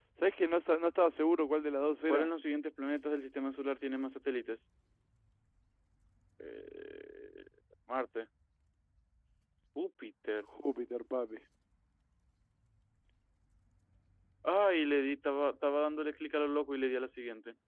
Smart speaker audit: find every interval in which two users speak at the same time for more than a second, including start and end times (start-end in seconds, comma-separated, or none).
none